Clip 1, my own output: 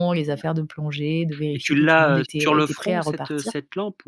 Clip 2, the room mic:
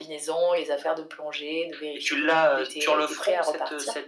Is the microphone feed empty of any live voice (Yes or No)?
Yes